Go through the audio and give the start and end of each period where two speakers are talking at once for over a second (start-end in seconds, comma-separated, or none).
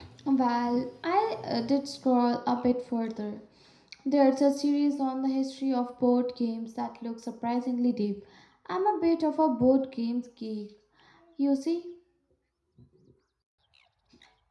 none